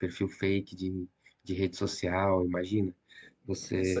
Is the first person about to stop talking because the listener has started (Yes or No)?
Yes